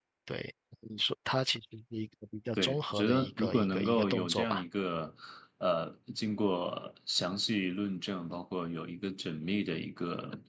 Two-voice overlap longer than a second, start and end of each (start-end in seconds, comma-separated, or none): 2.5-4.6